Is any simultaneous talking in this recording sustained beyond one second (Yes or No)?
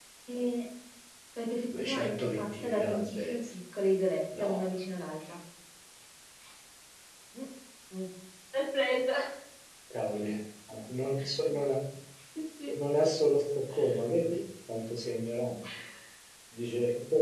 Yes